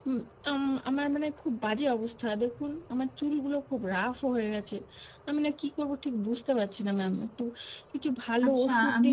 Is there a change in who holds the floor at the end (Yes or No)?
Yes